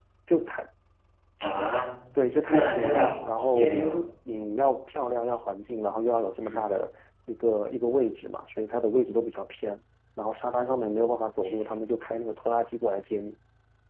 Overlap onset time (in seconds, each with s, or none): 2.5 s